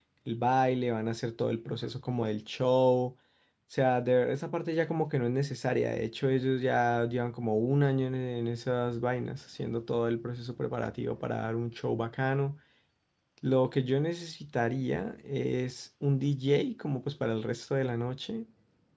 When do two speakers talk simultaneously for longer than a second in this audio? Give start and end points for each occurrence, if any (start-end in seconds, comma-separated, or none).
none